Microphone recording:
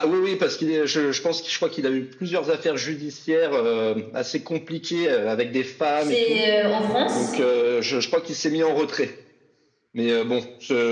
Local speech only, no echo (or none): chez, euh, en France,